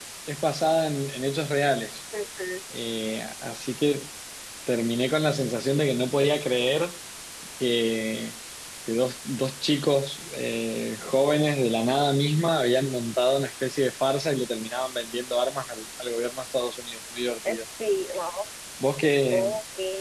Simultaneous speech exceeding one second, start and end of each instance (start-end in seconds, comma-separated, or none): none